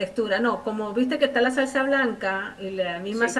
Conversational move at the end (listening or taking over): listening